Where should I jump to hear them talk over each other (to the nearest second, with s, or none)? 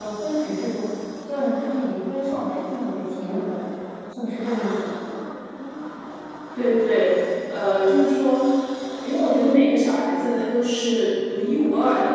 none